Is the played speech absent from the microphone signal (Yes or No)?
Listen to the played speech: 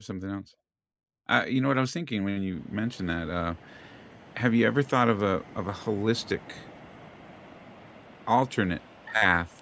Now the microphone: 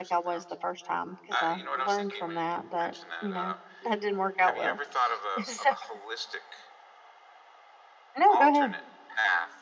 No